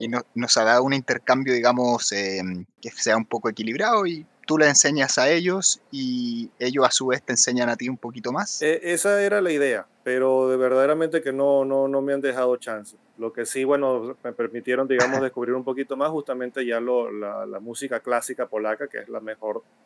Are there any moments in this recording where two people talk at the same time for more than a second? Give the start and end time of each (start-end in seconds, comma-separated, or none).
none